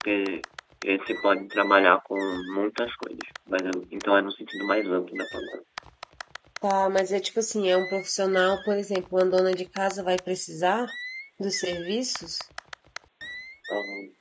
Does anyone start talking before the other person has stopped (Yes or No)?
No